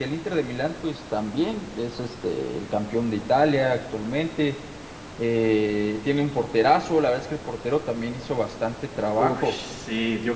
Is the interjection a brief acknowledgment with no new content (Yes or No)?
No